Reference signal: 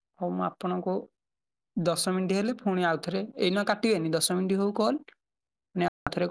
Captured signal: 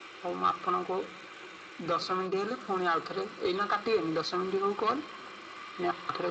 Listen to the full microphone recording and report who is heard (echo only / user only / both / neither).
echo only